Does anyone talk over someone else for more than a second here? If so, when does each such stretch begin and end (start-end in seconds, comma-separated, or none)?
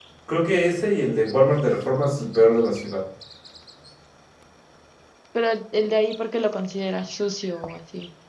none